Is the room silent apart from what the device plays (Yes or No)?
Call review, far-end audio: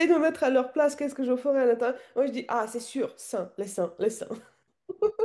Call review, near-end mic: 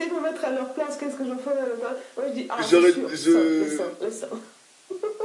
No